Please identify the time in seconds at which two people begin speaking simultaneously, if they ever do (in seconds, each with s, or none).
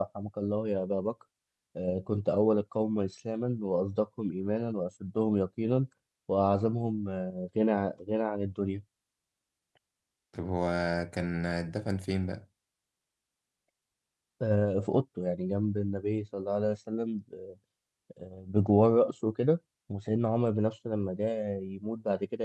none